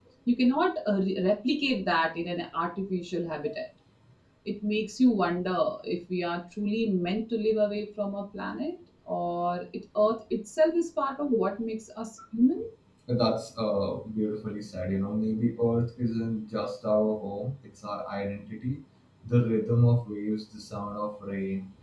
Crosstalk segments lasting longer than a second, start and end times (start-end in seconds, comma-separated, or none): none